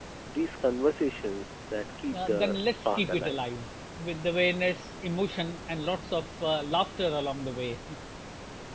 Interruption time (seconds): 2.1 s

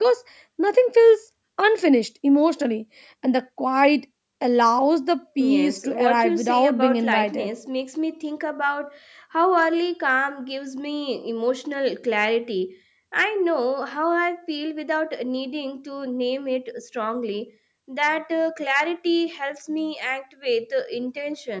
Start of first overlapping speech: 5.4 s

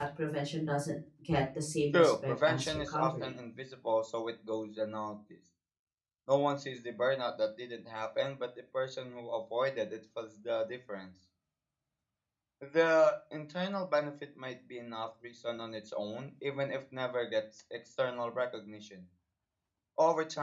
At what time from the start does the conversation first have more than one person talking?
1.9 s

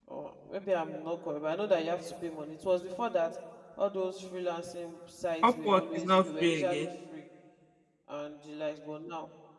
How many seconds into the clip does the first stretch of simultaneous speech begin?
5.4 s

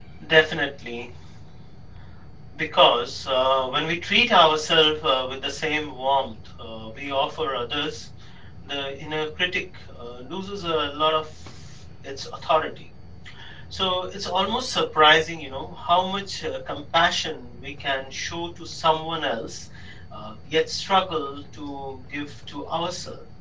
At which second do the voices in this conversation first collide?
none

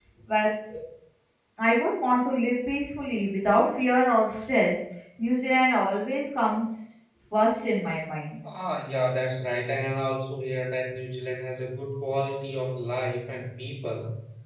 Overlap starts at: none

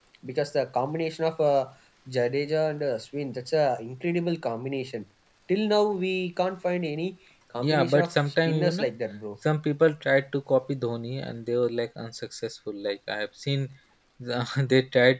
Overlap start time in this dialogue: 7.6 s

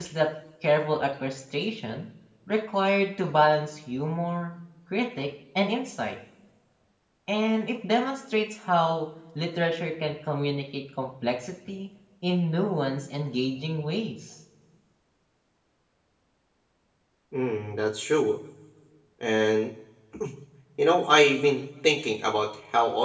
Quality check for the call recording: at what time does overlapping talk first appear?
none

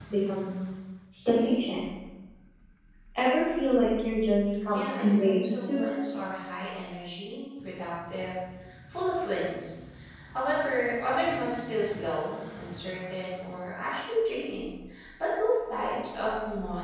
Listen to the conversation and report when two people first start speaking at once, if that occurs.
4.7 s

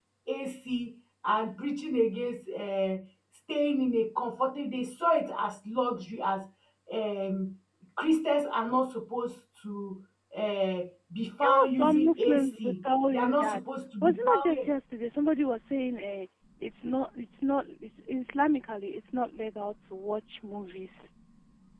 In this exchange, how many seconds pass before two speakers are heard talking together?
11.4 s

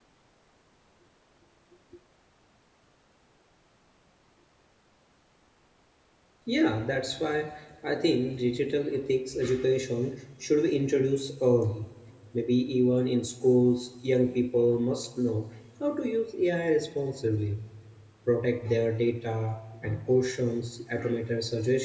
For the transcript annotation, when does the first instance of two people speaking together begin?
none

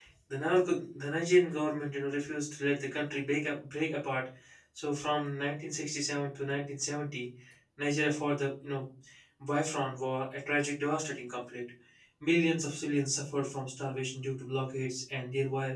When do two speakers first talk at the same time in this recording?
none

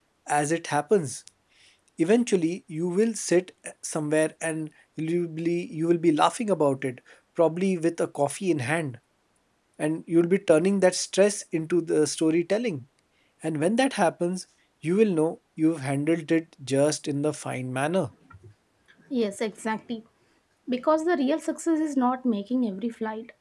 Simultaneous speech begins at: none

